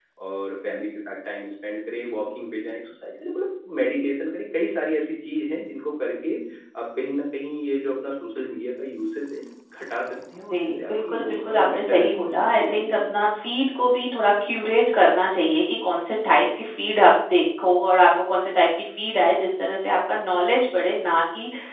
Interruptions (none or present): present